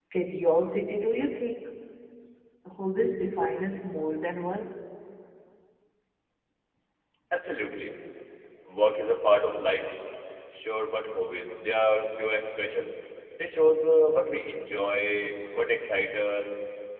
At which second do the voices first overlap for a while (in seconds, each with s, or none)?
none